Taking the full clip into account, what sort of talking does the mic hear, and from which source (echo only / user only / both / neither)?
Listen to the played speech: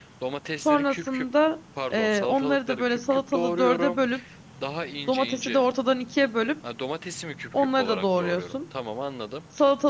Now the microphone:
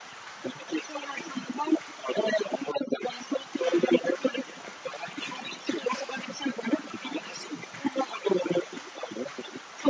echo only